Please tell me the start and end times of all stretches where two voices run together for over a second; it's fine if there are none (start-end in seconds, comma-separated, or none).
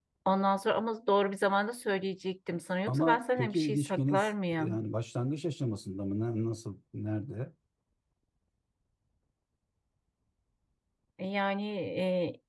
2.9-4.8